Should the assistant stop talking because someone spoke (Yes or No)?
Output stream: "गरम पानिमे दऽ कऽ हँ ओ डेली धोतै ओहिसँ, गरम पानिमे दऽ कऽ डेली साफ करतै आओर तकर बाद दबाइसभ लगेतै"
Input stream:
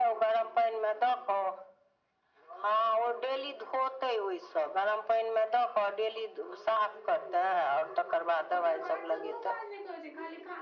Yes